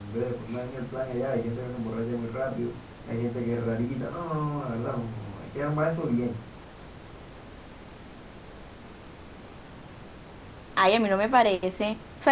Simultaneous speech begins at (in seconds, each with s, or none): none